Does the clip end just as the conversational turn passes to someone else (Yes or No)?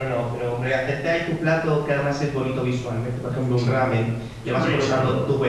No